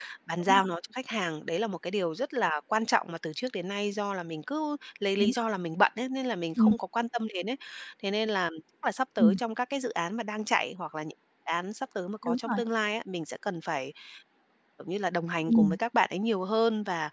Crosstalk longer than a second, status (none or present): none